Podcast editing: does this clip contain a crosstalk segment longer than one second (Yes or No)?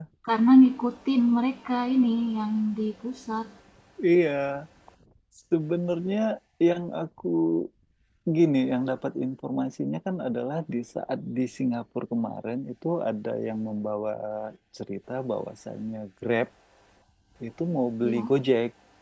No